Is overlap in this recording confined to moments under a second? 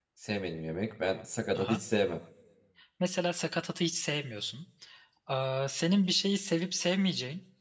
Yes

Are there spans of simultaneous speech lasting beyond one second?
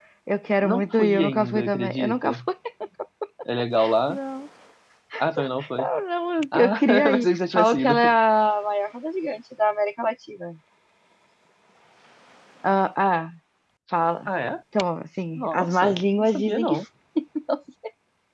Yes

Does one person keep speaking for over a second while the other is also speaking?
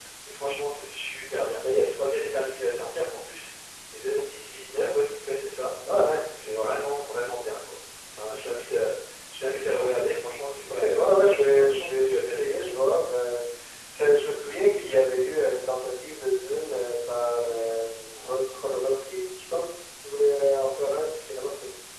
Yes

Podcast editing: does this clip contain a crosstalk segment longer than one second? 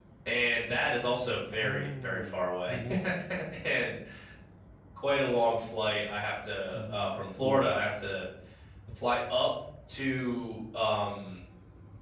Yes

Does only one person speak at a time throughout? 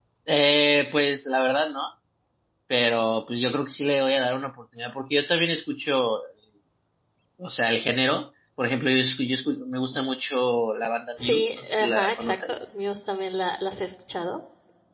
No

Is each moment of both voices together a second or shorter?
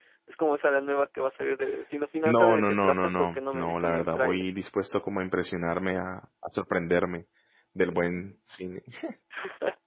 No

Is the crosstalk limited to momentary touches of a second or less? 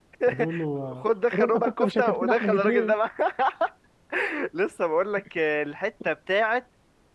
No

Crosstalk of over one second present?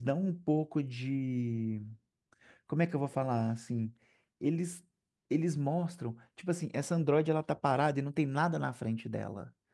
No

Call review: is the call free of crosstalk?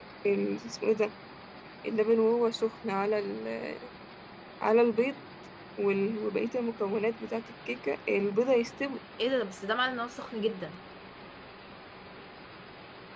Yes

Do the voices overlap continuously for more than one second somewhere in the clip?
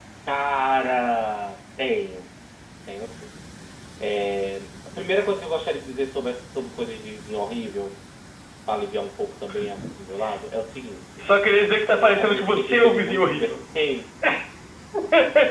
Yes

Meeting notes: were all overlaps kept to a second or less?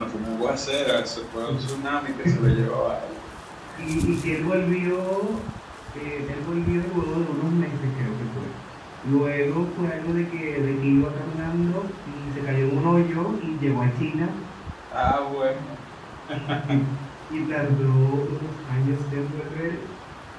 Yes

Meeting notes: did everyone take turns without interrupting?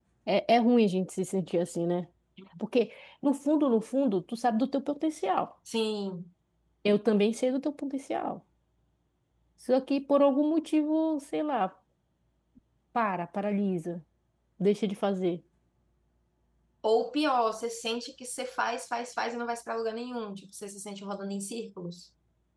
Yes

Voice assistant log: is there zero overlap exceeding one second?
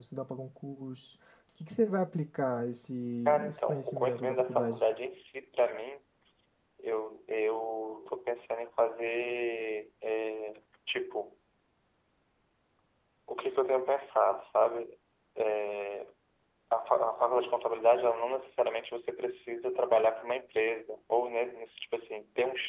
No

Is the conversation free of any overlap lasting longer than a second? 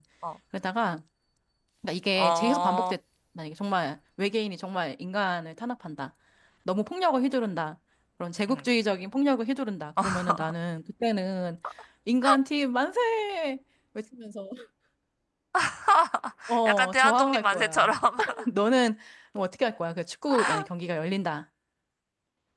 No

